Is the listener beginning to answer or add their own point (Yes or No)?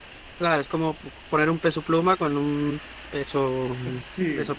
Yes